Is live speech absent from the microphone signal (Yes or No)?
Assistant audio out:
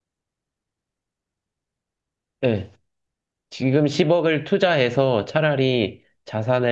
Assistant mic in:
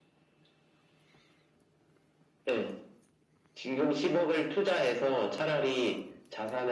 Yes